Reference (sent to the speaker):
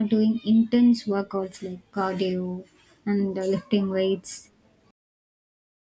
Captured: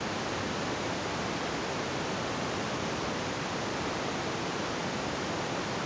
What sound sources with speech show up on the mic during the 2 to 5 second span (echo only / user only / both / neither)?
neither